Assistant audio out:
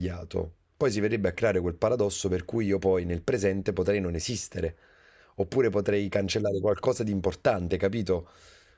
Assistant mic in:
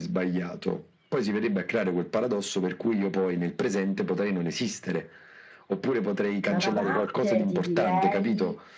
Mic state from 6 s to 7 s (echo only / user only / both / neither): both